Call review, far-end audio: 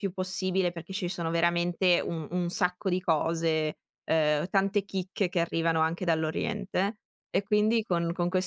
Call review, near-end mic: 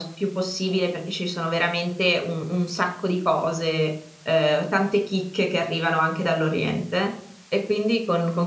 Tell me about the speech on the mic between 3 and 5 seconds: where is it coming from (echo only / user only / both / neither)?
echo only